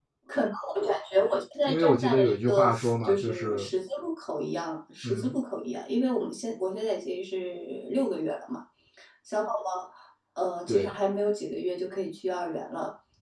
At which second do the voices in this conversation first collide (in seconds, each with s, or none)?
1.7 s